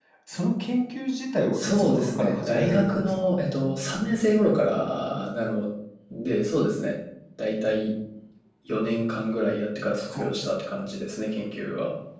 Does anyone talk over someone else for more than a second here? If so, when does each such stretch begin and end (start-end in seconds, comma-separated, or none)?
1.5-3.3